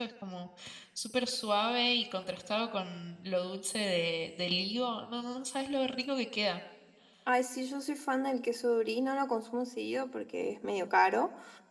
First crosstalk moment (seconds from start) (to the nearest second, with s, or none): none